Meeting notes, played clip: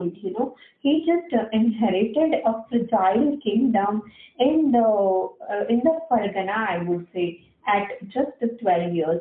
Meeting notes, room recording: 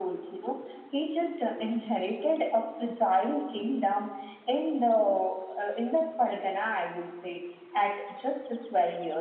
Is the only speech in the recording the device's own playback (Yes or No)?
Yes